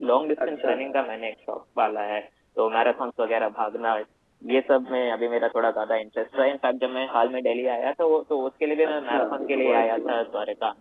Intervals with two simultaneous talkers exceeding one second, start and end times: 8.9-10.2

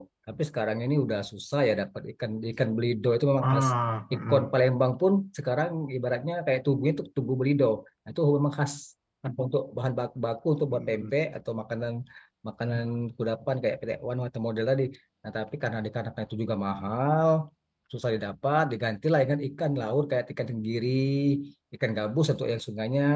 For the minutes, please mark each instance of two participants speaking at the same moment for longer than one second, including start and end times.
none

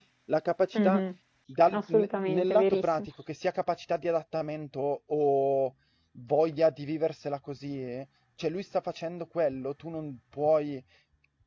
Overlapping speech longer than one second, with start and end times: 1.7-3.1

